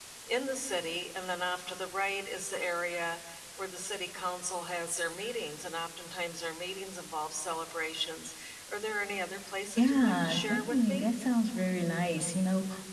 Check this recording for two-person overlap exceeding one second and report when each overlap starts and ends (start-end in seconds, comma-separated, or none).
9.8-11.1